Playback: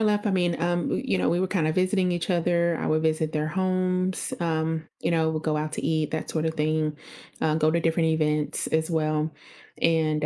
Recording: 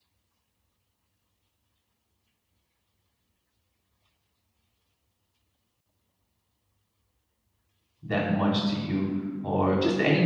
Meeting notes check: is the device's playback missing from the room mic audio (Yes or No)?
Yes